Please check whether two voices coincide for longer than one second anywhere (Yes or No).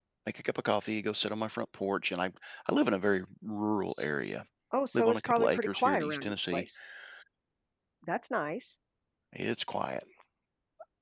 Yes